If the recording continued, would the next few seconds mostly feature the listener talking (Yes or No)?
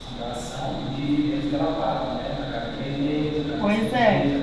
No